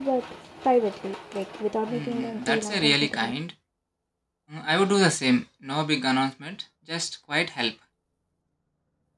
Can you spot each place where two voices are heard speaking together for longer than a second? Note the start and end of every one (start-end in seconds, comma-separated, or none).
1.9-3.3